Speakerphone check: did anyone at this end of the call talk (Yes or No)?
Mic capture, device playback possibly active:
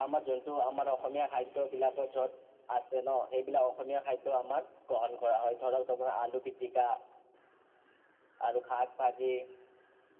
No